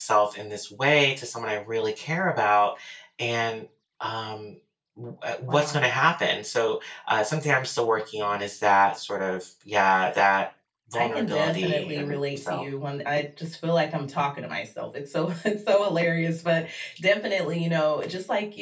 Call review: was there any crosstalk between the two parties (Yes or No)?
Yes